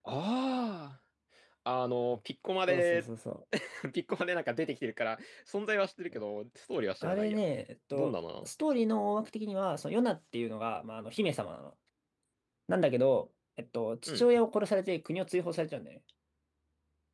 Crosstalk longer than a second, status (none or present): none